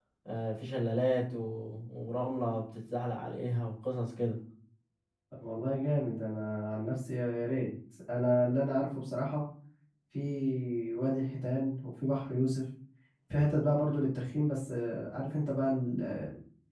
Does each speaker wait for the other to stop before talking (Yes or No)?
Yes